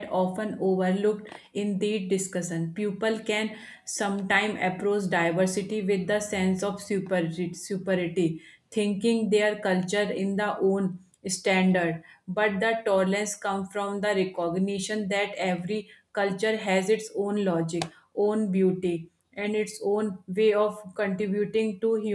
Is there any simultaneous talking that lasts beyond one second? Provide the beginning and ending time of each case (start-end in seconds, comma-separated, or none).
none